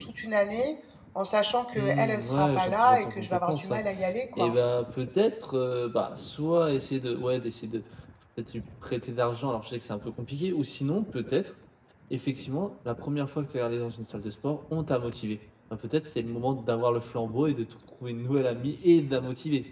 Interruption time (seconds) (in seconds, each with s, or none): 1.8 s